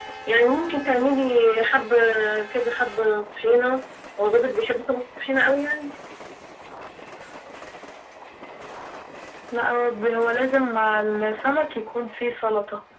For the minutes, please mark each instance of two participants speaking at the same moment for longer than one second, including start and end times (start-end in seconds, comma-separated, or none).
none